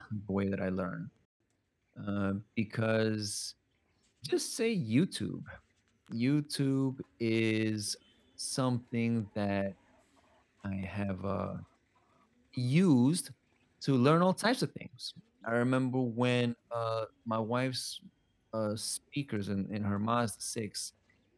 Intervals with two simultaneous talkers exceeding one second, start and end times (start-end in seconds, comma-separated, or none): none